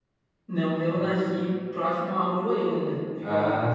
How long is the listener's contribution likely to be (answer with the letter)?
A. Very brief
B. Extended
A